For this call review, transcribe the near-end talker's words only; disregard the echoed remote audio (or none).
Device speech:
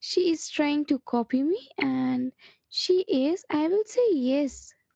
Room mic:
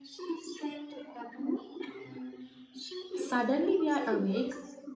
Suddenly, we are awake,